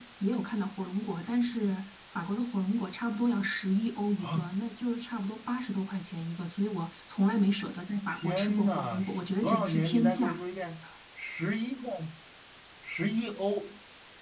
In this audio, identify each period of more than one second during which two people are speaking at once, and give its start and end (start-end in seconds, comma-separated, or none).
8.1-10.4